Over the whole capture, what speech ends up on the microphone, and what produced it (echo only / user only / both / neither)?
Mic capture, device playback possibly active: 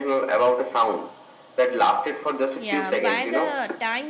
both